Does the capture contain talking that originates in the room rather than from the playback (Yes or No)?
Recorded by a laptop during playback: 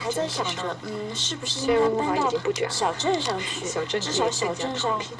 No